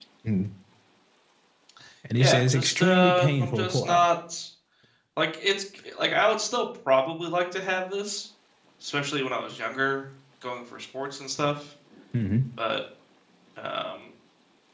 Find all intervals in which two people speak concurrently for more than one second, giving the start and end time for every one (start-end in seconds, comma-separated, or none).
2.2-4.0